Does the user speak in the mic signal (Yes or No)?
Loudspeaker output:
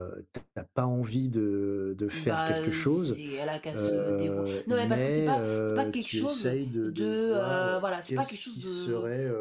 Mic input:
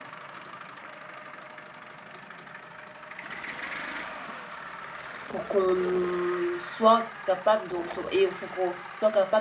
Yes